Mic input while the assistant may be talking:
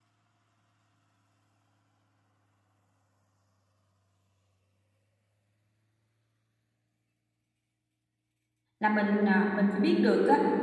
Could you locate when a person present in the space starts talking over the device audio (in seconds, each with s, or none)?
8.8 s